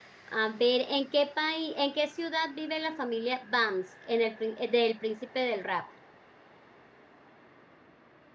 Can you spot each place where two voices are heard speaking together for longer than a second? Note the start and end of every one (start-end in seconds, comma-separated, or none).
none